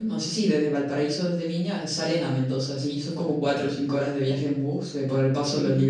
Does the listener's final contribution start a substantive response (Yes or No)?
No